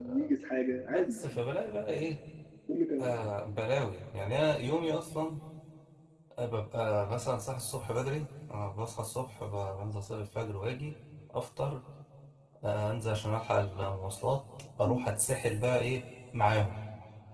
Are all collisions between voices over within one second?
Yes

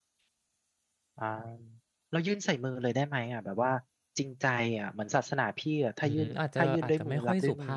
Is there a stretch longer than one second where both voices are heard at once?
Yes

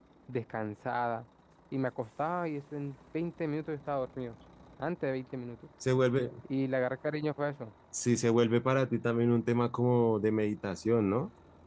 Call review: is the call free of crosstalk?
Yes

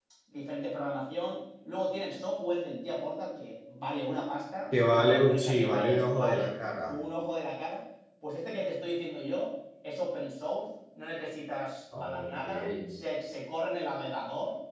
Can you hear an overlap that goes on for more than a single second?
Yes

